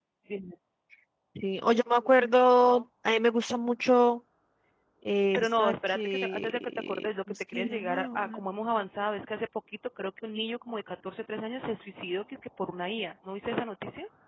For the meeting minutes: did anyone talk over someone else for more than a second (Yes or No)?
Yes